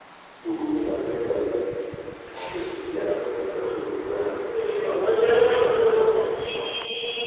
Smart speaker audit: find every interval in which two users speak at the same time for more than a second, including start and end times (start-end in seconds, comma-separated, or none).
4.5-6.7